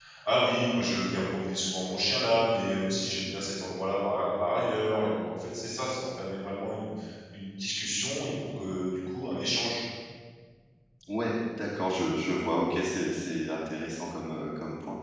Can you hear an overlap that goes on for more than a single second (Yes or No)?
No